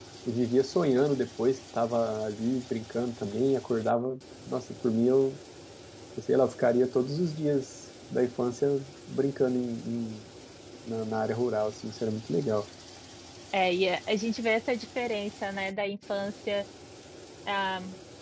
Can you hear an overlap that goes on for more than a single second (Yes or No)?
No